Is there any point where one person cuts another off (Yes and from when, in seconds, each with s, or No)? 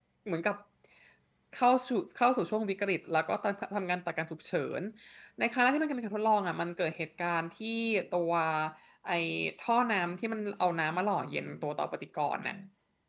No